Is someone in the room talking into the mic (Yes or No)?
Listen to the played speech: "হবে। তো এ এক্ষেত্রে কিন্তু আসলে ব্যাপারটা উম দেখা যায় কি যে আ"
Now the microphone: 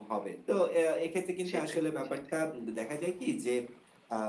Yes